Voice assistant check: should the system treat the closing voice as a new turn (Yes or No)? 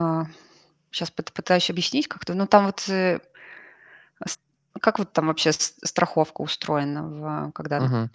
Yes